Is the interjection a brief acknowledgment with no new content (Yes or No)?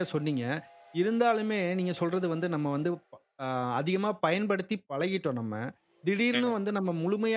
Yes